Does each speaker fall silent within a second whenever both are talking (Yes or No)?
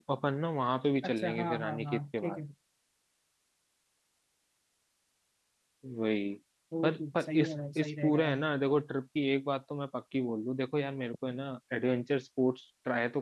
No